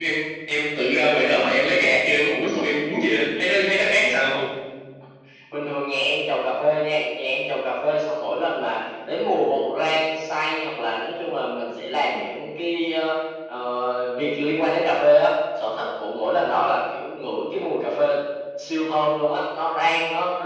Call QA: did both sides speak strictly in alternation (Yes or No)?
Yes